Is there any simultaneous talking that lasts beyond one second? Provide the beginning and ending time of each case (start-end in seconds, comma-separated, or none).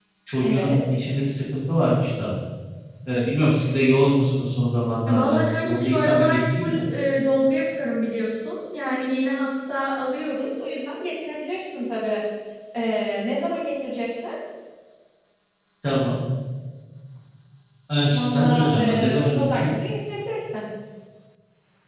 5.1-6.8, 18.1-19.7